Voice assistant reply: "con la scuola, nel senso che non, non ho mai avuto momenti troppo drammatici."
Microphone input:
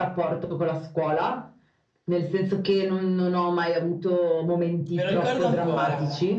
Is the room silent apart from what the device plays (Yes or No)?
No